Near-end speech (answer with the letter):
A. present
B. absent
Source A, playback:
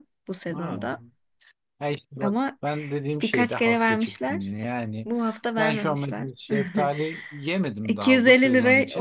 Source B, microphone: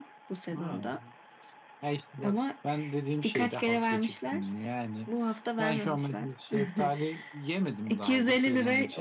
B